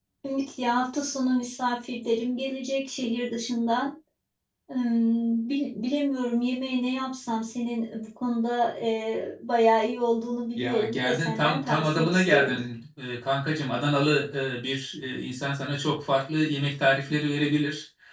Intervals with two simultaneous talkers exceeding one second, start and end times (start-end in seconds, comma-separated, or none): 10.6-12.6